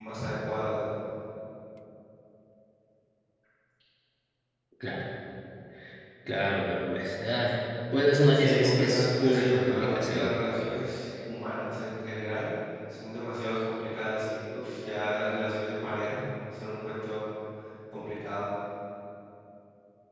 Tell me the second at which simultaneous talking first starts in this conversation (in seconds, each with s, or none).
8.3 s